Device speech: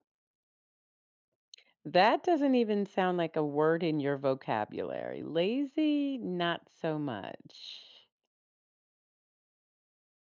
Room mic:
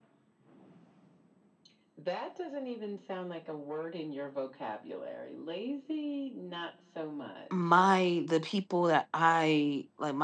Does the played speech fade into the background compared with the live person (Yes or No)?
Yes